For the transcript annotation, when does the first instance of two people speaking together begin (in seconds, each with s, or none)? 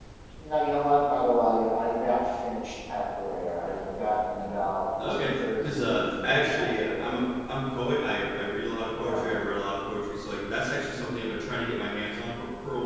5.0 s